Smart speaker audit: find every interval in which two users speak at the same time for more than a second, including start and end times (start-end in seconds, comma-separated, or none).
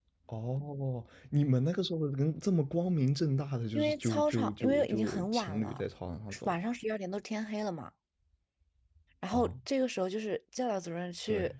3.8-5.8